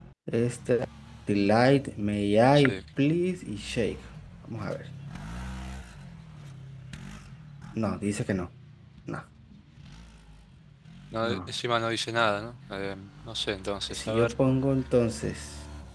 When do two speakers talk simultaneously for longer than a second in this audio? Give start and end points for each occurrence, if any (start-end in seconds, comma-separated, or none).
none